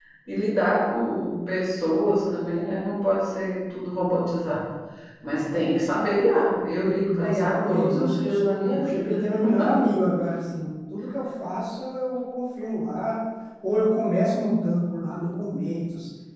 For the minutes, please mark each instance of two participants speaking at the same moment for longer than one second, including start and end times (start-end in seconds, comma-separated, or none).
7.1-9.2